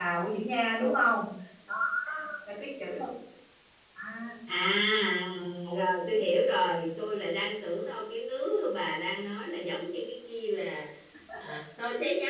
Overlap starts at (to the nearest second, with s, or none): none